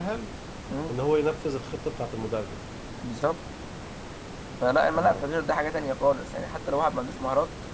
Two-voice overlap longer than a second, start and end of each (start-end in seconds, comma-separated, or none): none